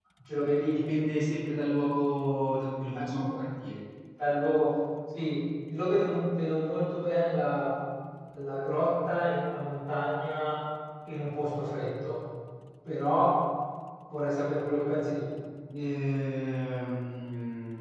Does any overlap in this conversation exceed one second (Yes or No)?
No